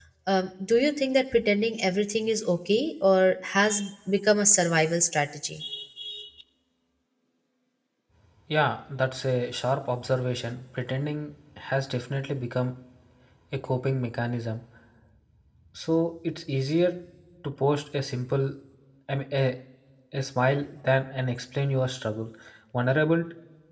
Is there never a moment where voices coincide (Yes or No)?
Yes